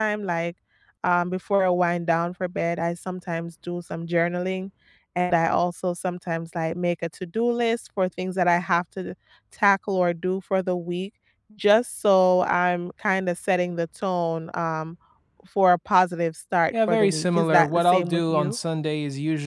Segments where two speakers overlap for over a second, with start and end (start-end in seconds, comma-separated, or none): 16.7-18.6